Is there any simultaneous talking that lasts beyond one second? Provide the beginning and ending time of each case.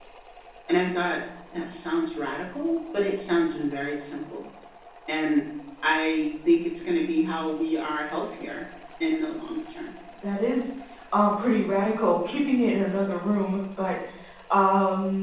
none

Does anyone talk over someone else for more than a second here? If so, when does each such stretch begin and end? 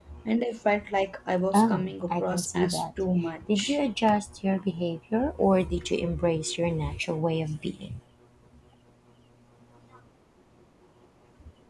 1.5-3.0

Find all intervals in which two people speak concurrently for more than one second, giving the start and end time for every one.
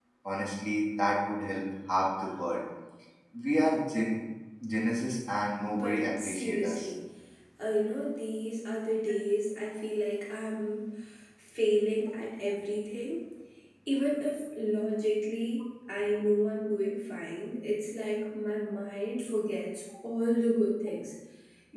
5.7-6.9

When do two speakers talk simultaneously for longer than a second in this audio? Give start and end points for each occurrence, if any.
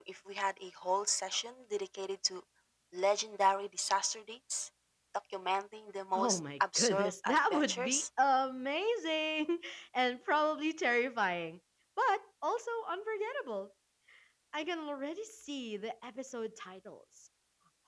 6.2-8.0

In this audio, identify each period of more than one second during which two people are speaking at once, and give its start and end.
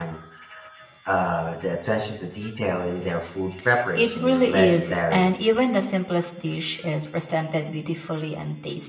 4.0-5.3

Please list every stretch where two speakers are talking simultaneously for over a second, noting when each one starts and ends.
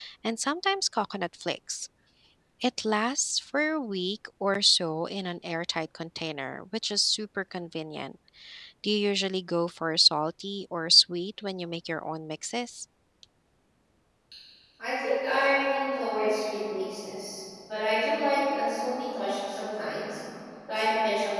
none

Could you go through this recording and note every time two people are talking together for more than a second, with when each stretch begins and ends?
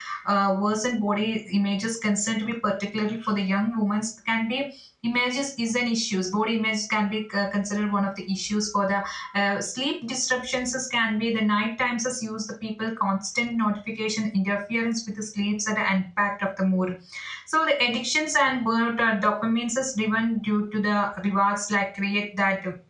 none

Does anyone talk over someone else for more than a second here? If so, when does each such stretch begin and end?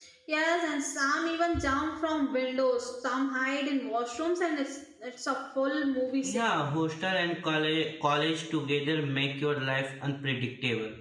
none

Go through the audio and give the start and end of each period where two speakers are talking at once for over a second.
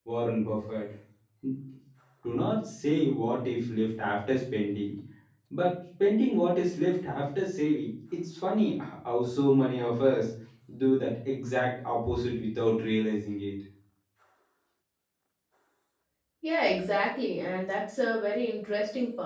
none

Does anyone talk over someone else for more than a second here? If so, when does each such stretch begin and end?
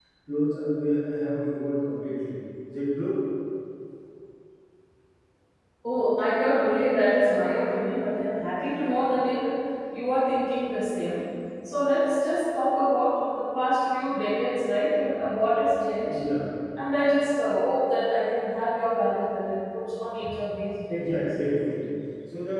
none

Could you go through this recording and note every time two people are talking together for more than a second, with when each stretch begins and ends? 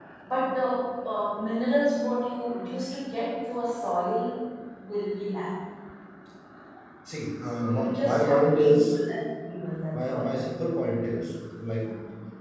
7.6-8.9

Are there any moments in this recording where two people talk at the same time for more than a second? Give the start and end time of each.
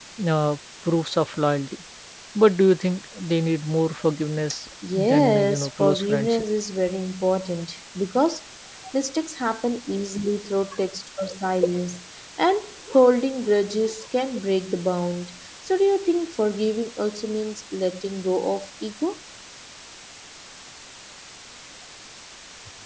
5.0-6.4

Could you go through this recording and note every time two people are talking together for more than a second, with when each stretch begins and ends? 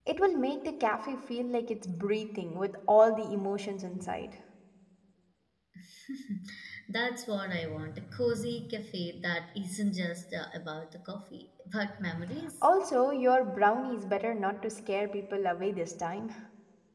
none

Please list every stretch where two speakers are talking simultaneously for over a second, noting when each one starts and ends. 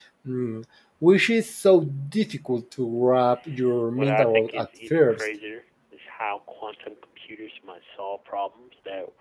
4.0-5.2

